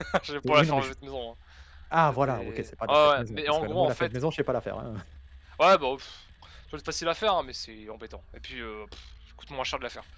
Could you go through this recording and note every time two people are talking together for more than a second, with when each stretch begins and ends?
2.3-4.1

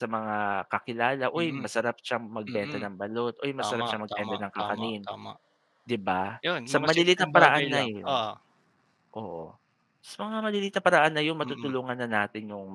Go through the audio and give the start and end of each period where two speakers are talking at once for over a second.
3.6-4.9, 6.7-8.2

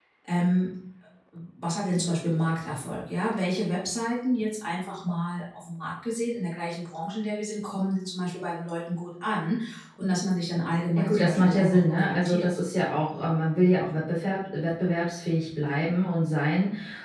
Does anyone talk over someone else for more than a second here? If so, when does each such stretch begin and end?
11.0-12.5

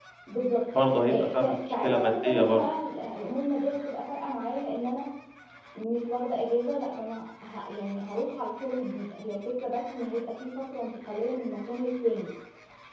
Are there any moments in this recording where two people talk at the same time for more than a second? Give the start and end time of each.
0.9-2.6

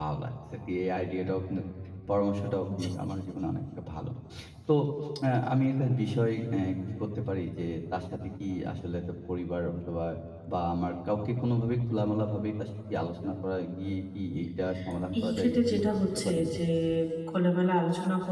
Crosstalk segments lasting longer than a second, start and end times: 15.2-16.4

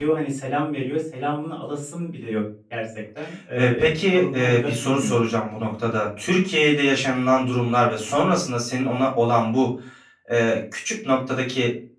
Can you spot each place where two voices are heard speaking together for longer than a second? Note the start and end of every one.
3.6-5.2

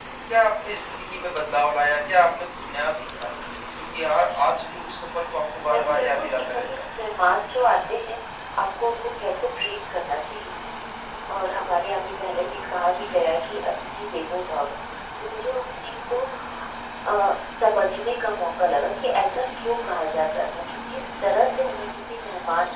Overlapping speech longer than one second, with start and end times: 5.7-6.9

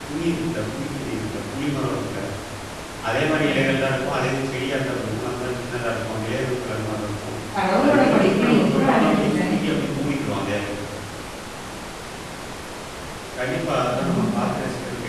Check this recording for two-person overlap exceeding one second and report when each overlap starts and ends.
7.8-9.4

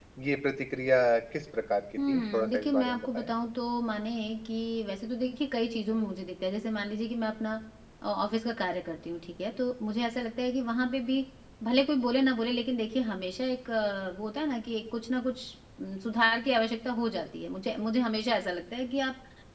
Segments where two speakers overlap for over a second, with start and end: 2.1-3.3

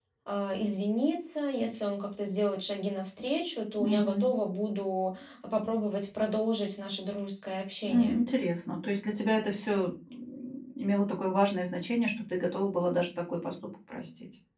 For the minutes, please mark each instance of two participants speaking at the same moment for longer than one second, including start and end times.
none

